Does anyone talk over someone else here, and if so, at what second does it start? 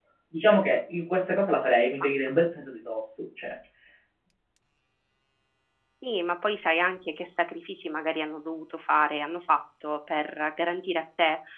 none

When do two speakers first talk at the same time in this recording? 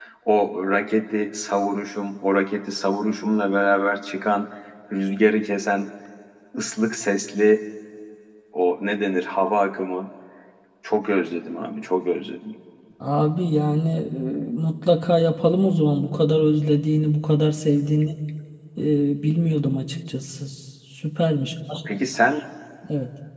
none

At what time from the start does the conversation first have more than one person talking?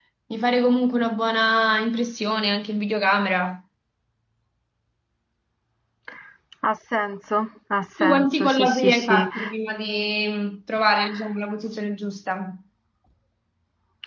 8.0 s

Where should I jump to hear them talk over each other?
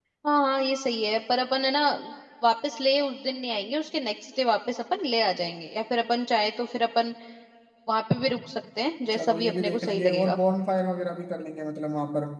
9.1 s

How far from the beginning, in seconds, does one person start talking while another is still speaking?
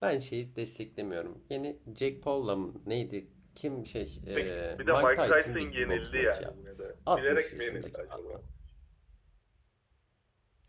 4.3 s

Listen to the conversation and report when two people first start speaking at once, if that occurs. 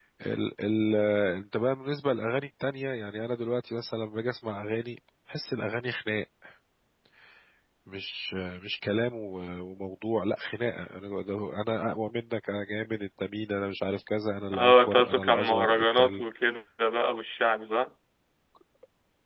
14.5 s

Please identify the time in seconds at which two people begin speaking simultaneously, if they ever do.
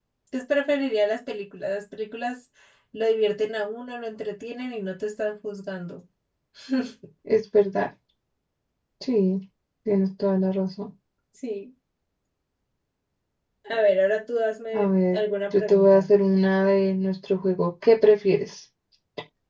14.7 s

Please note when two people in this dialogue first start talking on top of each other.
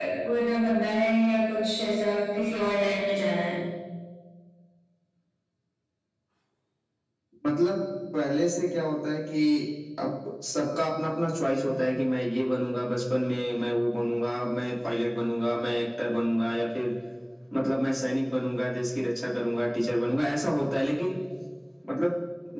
none

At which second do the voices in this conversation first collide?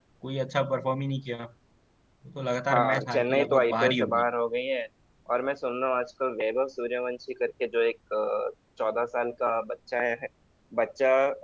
2.7 s

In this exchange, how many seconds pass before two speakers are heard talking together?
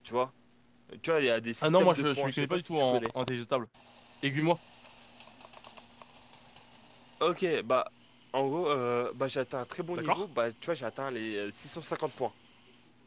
1.6 s

